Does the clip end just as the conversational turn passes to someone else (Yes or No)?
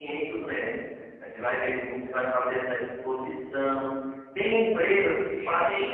No